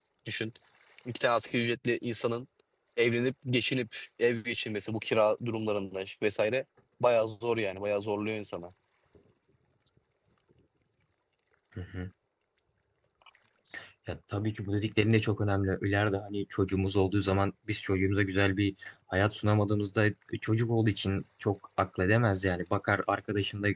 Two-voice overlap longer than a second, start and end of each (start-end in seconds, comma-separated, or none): none